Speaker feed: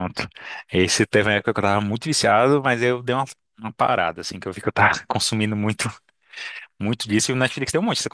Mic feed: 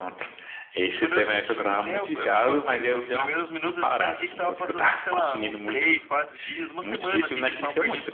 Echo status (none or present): present